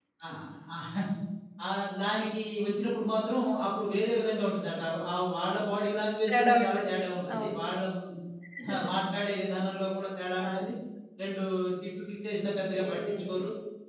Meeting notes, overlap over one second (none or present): present